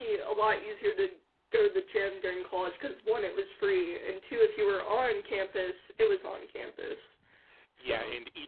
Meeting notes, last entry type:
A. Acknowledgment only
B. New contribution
B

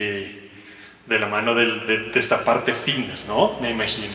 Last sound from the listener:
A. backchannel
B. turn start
B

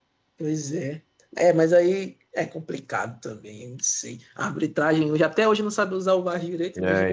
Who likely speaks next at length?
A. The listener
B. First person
B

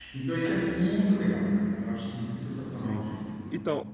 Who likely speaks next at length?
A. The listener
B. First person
A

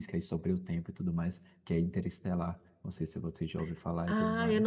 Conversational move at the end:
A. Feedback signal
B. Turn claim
B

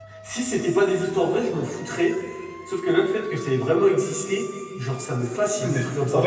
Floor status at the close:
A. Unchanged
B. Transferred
B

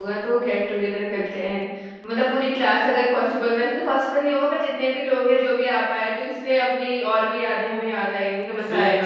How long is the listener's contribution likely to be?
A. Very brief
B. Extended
B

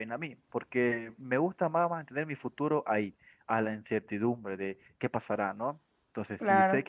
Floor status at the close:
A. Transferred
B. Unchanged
B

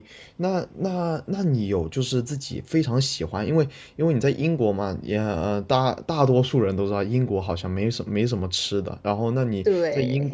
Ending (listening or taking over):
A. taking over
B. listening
B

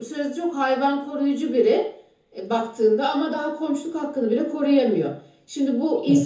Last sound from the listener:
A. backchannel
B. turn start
A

